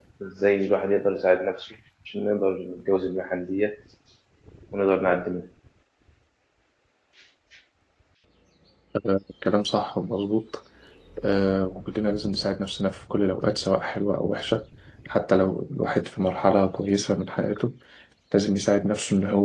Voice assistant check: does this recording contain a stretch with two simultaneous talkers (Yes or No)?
No